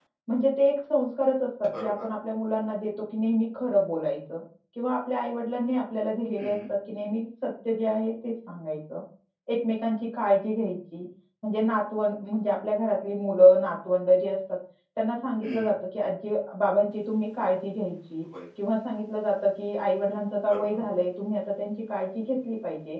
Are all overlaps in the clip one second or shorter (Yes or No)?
Yes